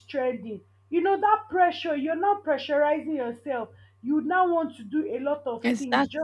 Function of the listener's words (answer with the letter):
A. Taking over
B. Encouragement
B